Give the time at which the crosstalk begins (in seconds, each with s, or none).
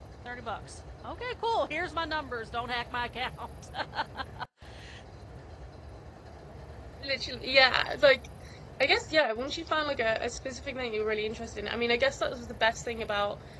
none